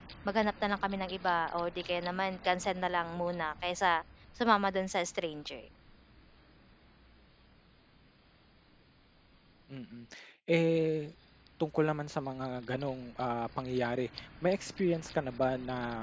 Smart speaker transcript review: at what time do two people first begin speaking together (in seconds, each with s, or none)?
none